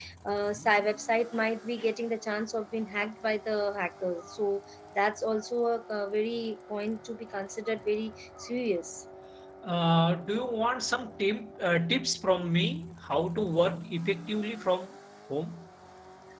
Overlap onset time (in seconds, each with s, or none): none